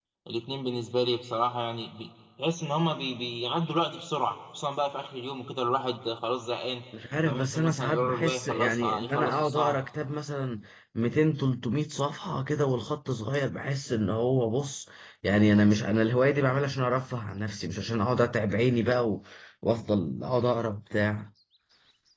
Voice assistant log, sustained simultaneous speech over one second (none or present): present